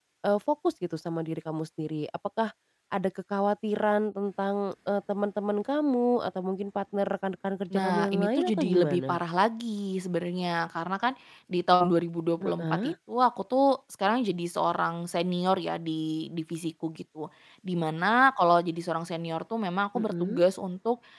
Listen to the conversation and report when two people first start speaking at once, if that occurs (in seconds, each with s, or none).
7.7 s